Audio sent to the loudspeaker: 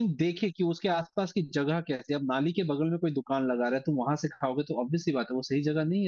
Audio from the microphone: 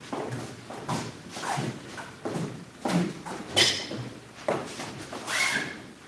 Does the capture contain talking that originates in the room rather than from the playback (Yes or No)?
No